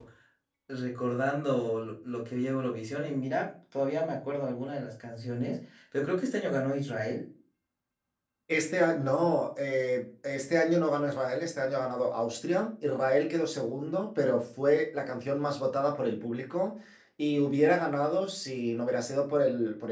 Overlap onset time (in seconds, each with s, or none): none